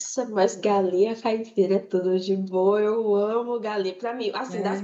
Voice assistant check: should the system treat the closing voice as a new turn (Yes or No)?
No